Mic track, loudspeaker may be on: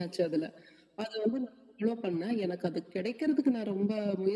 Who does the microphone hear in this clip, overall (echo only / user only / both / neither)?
echo only